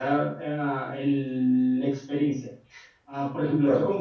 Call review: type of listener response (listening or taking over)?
listening